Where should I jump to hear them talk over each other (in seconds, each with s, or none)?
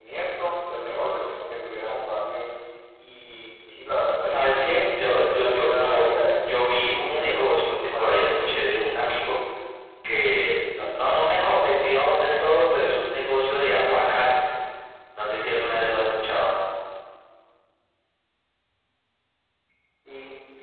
4.2 s